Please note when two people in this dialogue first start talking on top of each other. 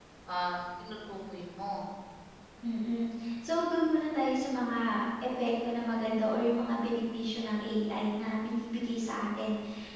none

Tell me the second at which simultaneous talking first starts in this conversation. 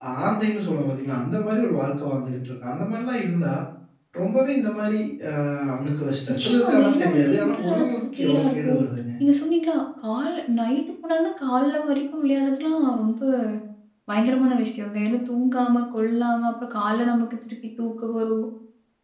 6.3 s

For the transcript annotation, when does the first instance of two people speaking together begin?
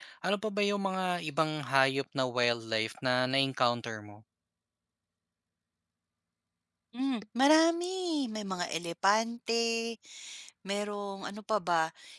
none

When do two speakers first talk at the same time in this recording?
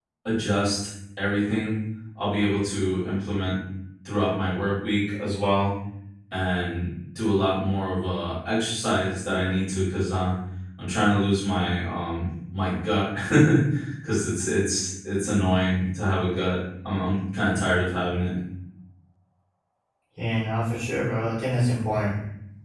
none

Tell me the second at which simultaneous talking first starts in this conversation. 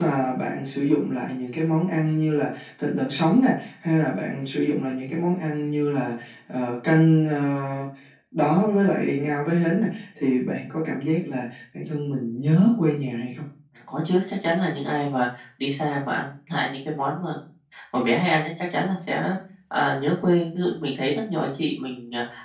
none

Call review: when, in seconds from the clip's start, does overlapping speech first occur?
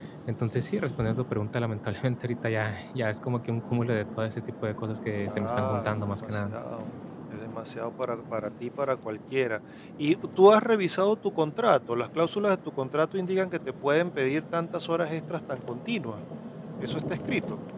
5.2 s

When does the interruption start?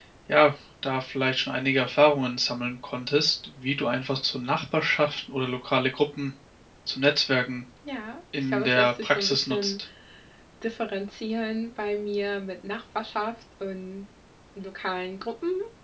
8.5 s

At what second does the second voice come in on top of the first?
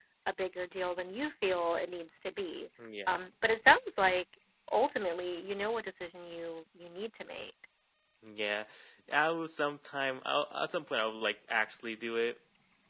none

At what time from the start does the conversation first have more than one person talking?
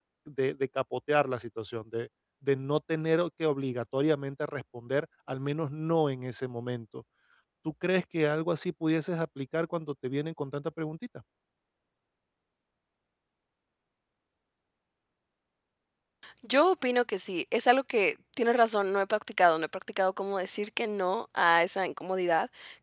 none

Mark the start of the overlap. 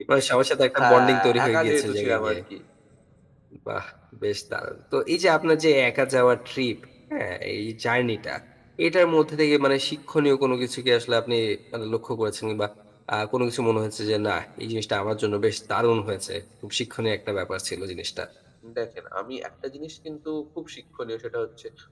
0.8 s

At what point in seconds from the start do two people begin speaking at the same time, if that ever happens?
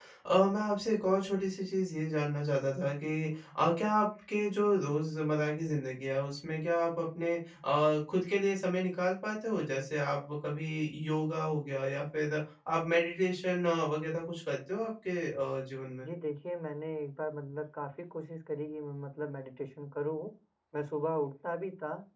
none

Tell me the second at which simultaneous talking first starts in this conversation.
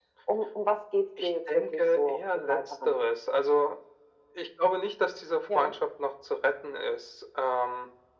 1.2 s

